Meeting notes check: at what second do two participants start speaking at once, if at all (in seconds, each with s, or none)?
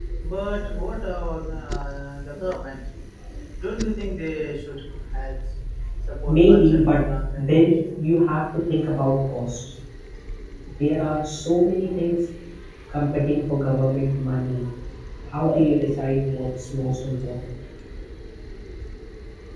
6.3 s